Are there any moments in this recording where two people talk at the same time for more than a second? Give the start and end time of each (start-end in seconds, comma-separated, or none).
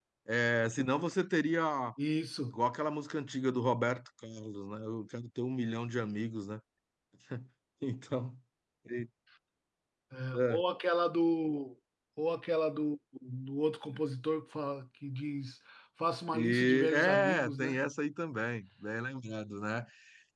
16.3-17.8